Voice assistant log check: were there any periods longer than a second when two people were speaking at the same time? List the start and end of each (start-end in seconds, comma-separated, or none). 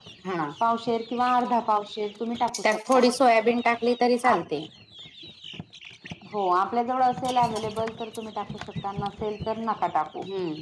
none